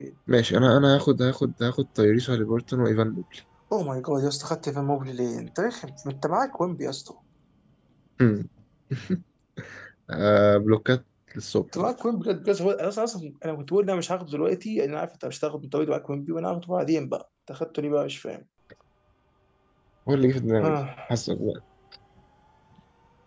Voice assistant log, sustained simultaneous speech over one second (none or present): none